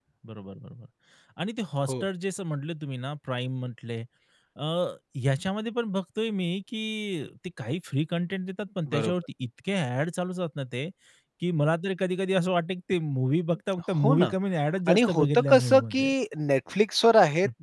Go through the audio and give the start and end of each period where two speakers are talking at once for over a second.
14.9-16.1

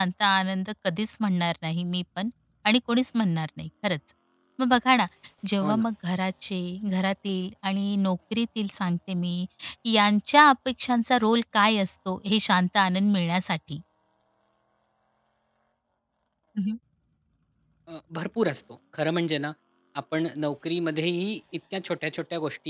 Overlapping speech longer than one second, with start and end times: none

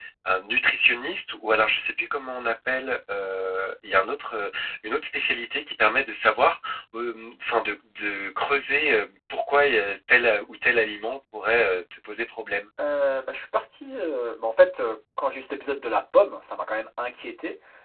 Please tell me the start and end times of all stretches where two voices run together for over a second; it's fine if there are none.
none

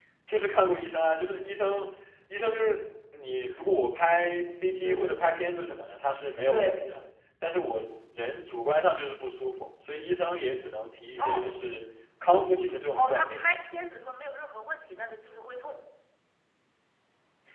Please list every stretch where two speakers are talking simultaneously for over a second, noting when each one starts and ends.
none

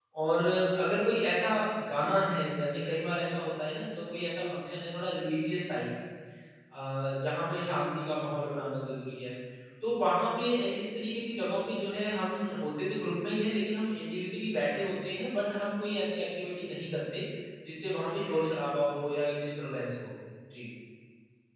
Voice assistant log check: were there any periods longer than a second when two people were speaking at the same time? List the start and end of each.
none

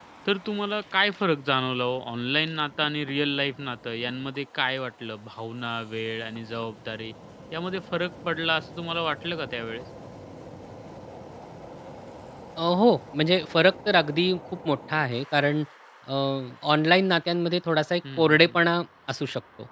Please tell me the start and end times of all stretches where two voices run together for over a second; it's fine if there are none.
none

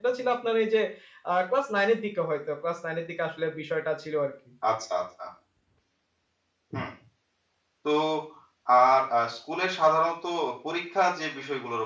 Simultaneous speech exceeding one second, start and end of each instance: none

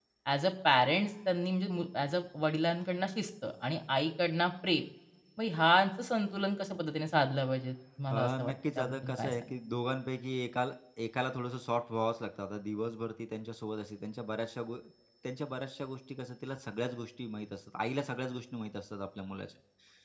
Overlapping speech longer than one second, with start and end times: 8.1-9.3

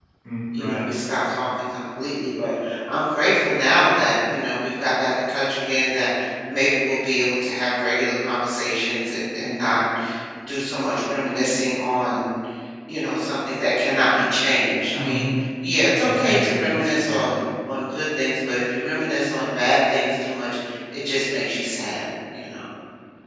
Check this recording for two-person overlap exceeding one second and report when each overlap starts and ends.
16.0-17.3

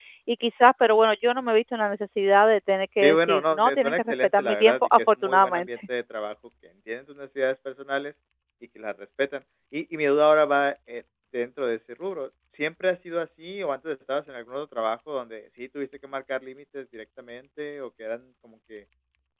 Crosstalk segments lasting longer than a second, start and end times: 3.0-5.7

